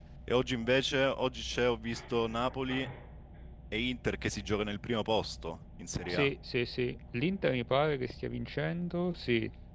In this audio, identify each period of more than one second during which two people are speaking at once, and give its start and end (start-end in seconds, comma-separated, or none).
none